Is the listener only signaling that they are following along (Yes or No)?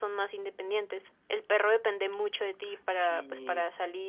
Yes